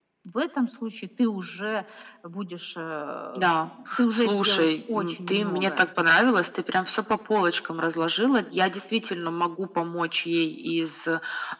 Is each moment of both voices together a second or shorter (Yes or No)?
No